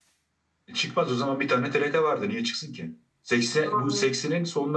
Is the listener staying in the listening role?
Yes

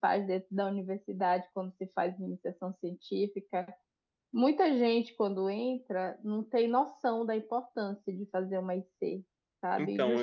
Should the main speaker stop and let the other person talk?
No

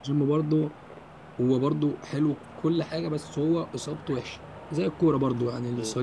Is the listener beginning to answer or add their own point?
No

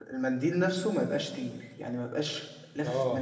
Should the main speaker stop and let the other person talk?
Yes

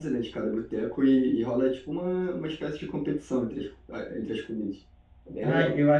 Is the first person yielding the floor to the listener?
Yes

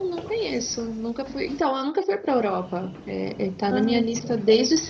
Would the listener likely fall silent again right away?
Yes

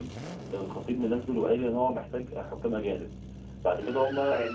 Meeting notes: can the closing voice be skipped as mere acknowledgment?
Yes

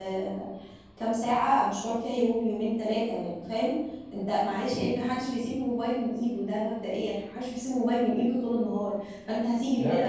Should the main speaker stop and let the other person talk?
No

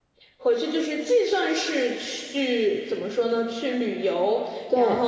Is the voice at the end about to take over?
No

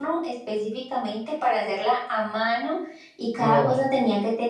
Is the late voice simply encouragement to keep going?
Yes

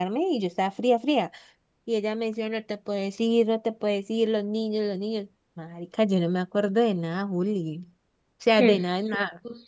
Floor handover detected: Yes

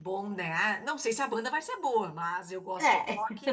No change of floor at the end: Yes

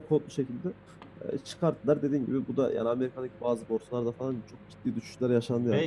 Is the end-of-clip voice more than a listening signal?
Yes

